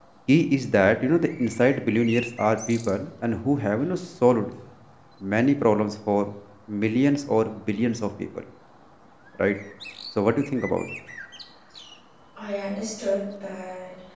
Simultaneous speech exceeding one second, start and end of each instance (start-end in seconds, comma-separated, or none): none